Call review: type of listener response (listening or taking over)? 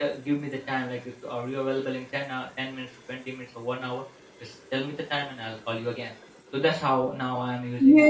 taking over